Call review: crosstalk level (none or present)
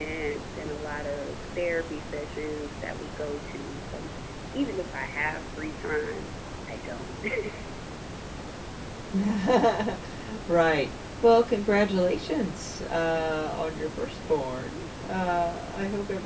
none